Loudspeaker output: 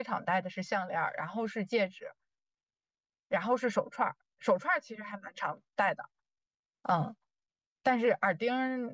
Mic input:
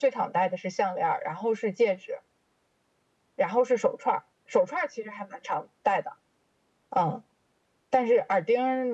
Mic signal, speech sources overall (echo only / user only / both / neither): echo only